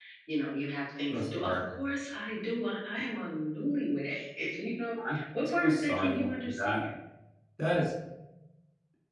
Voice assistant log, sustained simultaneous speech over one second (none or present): present